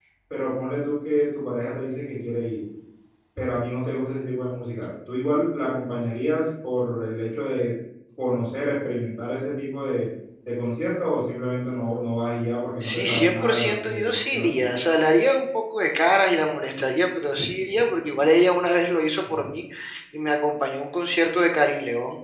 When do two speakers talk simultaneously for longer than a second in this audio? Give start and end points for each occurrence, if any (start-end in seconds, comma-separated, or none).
12.8-14.5